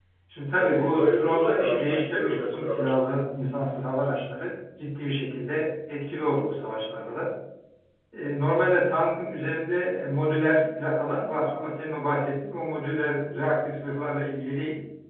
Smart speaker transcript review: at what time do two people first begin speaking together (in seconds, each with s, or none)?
0.5 s